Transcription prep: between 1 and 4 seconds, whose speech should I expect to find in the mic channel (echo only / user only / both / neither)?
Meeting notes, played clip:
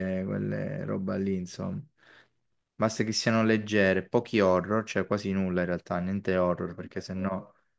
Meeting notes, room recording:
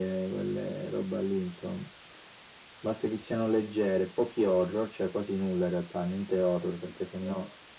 echo only